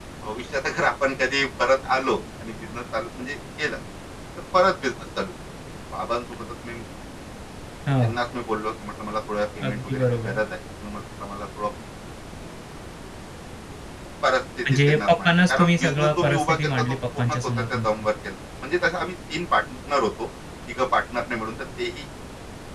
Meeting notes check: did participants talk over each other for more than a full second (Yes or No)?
Yes